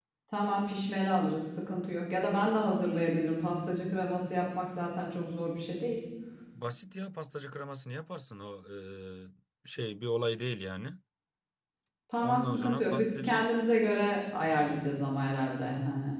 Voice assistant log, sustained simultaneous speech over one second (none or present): present